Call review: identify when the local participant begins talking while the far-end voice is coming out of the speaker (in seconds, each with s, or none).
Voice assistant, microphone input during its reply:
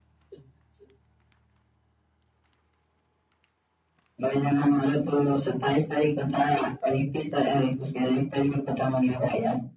none